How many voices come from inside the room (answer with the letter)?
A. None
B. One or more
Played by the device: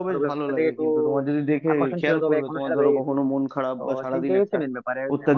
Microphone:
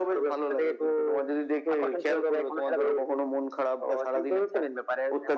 A